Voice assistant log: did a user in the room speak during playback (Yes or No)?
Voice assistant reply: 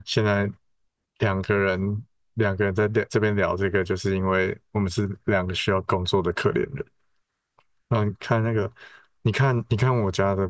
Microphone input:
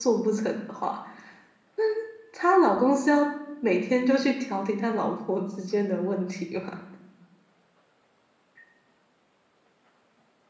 Yes